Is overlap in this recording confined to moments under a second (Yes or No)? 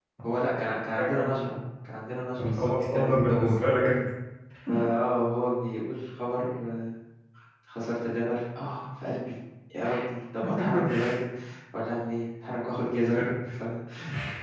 No